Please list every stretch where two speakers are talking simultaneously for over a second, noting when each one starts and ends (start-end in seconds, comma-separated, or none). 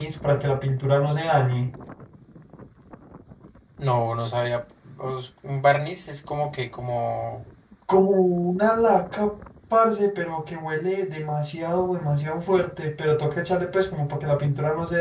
none